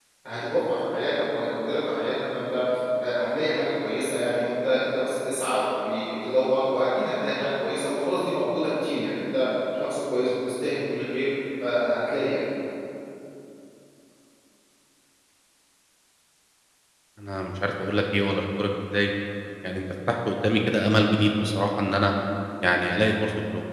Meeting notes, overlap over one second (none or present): none